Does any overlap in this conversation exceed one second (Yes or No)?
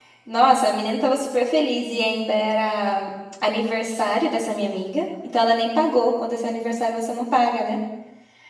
No